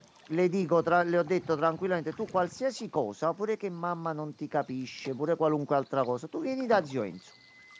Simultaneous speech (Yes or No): No